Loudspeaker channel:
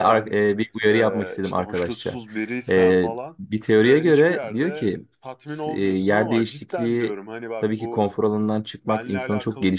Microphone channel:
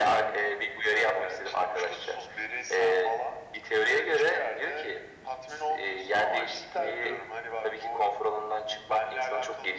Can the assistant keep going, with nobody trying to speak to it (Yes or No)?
No